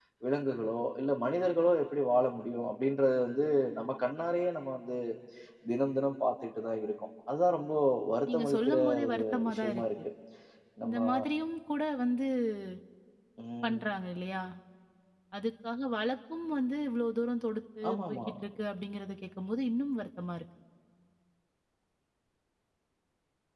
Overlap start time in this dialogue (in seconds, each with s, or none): 8.3 s